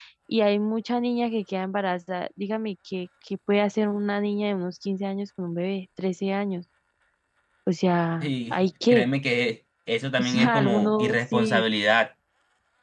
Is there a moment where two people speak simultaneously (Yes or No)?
Yes